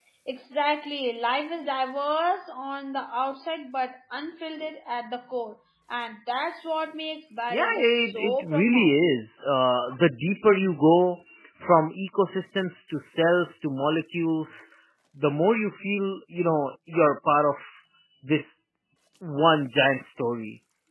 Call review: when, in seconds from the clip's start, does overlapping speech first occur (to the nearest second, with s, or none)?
7 s